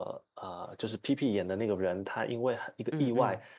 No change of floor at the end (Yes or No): Yes